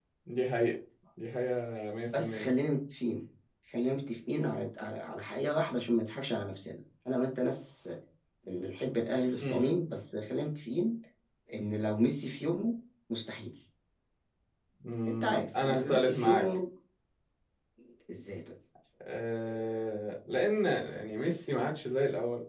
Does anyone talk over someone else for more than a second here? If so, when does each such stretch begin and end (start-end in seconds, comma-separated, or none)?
15.1-16.5